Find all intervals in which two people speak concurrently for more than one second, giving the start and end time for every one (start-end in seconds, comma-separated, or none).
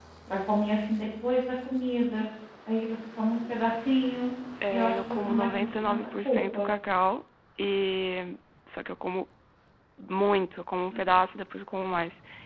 4.7-6.7